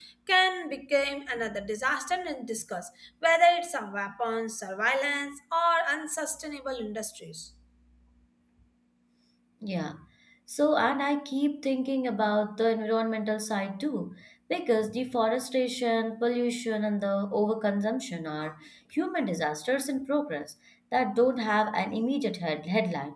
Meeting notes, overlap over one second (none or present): none